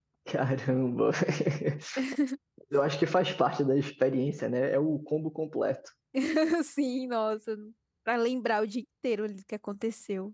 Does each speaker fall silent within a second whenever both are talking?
Yes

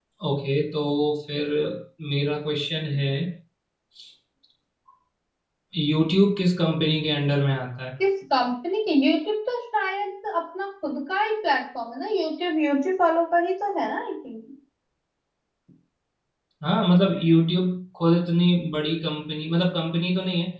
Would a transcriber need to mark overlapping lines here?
No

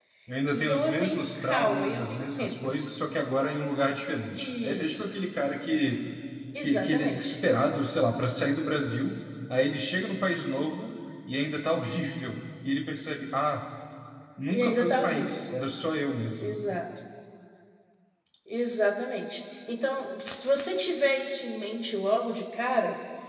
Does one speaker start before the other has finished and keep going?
Yes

